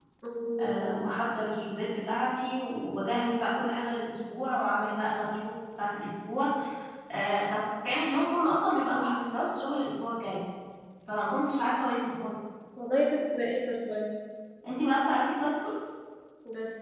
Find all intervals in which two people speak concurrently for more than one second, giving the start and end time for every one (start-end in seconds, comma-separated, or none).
none